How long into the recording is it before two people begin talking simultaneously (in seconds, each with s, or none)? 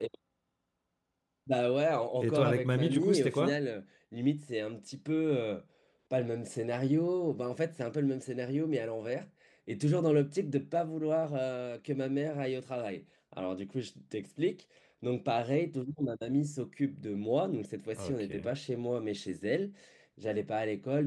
2.2 s